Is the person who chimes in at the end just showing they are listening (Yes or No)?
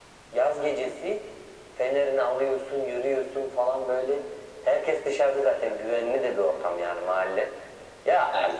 Yes